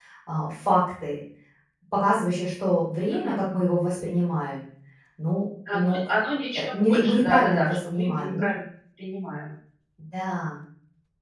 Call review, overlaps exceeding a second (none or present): present